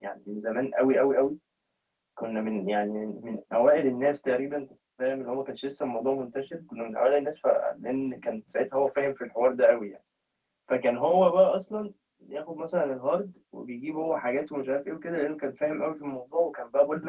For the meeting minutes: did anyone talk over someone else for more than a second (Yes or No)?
No